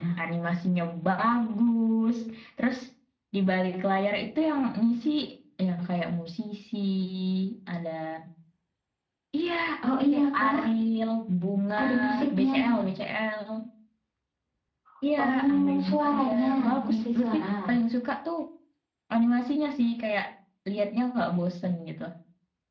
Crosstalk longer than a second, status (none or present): present